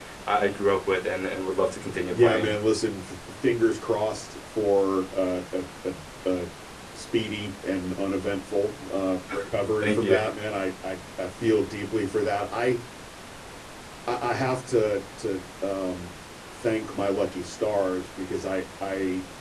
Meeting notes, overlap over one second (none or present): none